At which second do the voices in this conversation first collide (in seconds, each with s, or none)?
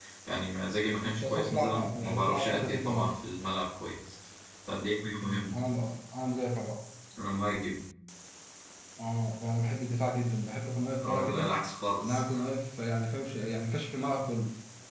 1.1 s